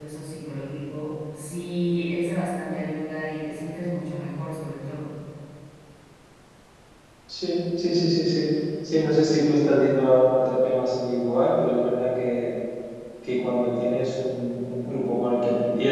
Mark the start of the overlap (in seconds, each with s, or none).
none